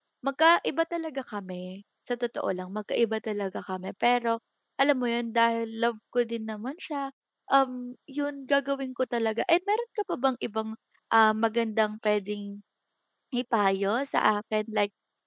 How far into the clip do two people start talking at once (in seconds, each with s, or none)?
none